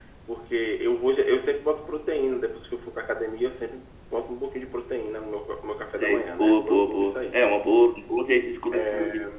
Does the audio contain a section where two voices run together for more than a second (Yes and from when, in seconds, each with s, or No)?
Yes, from 6.0 s